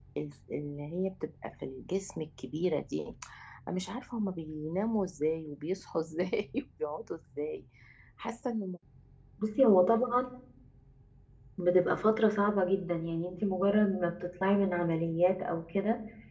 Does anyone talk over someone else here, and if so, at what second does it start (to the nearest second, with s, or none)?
none